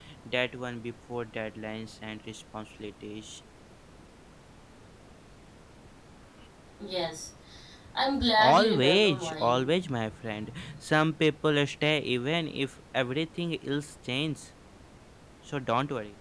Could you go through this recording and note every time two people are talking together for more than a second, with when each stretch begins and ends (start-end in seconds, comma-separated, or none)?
8.4-9.7